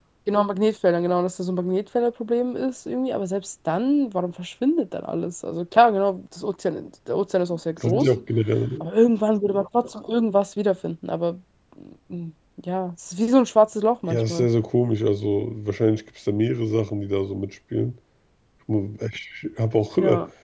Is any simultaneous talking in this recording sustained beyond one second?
No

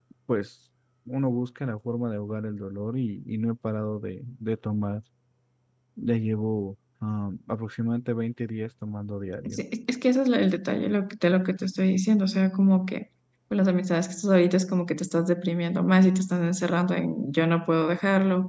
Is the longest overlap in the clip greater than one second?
No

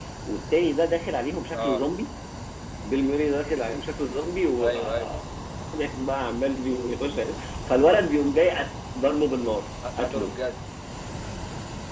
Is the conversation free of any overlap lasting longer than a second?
Yes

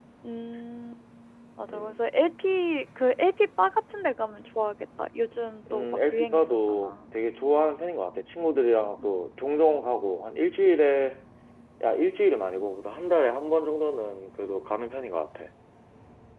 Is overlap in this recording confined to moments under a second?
No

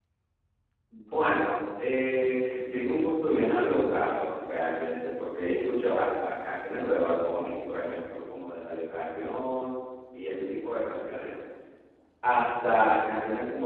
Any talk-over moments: No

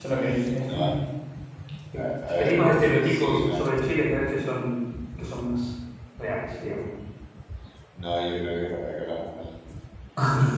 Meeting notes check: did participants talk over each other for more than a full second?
Yes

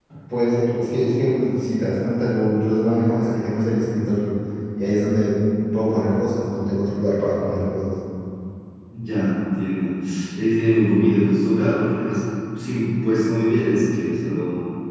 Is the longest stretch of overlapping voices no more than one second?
Yes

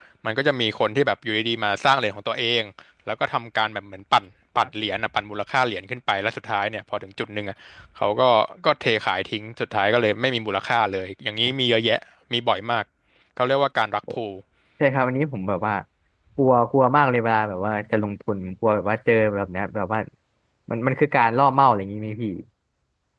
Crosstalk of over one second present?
No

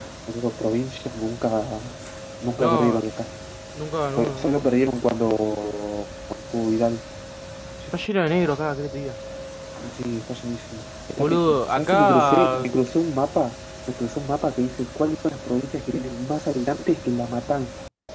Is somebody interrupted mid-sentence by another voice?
Yes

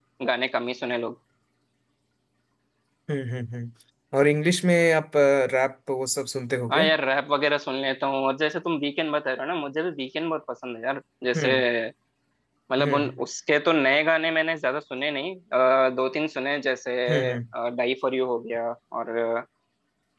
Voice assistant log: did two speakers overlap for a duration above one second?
No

